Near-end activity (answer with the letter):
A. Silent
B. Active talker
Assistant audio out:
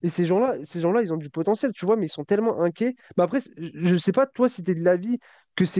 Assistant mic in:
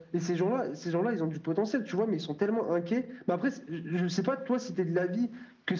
A